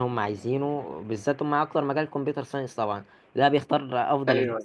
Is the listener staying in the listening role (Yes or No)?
Yes